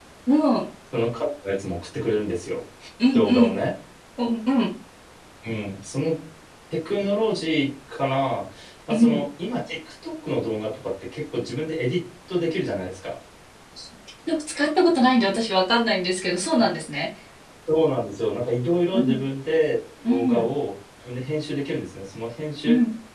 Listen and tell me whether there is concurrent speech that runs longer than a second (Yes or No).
No